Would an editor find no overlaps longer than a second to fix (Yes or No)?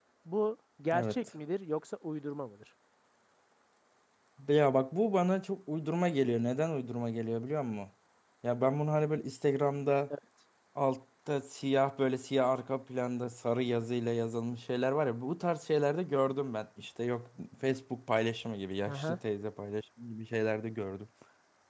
Yes